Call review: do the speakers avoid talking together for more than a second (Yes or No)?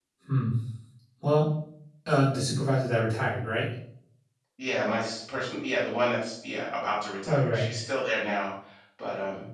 Yes